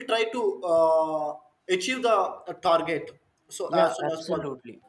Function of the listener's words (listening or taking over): taking over